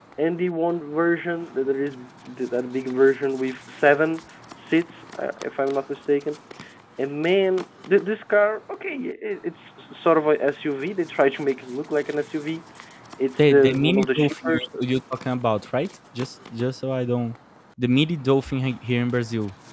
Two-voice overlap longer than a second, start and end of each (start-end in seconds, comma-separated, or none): 13.4-14.7